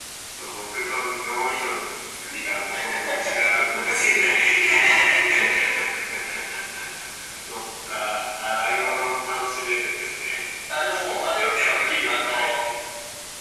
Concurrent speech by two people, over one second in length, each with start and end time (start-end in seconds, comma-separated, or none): 11.1-12.5